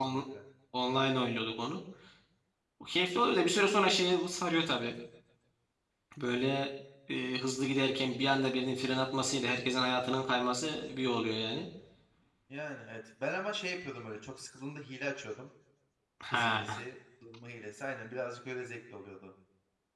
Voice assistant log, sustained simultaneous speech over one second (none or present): none